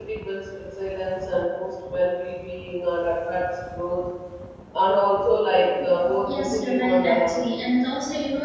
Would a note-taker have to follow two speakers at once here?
Yes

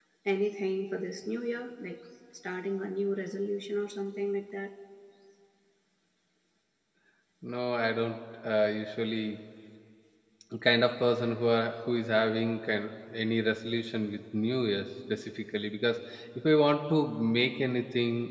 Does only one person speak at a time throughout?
Yes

